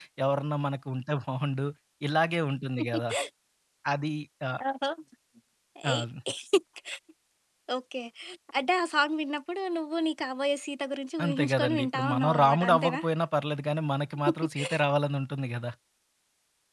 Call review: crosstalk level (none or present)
present